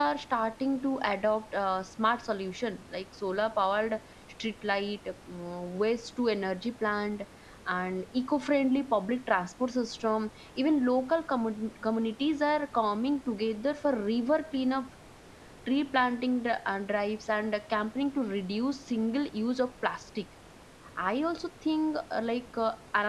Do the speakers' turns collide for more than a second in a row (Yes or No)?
No